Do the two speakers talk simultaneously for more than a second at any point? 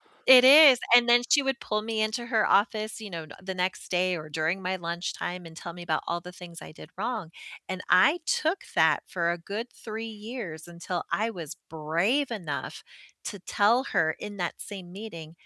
No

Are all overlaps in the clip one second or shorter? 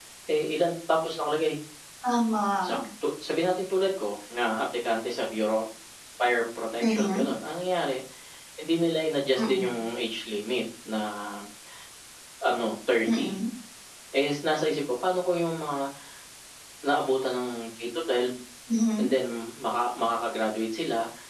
Yes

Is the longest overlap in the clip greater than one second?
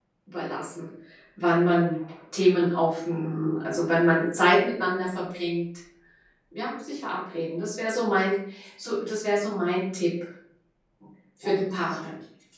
No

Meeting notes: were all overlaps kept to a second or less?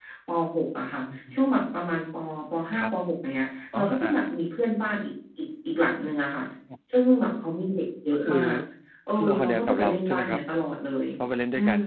No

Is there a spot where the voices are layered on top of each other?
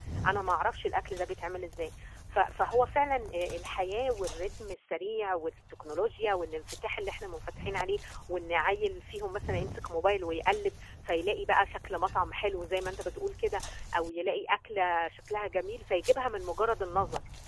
No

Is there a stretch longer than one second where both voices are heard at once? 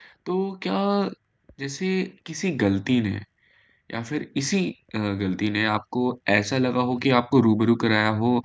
No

